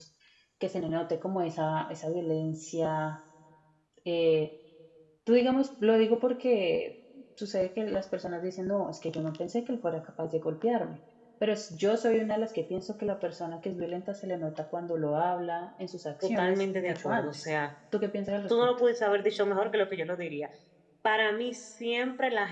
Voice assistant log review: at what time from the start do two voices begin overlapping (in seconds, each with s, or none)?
16.2 s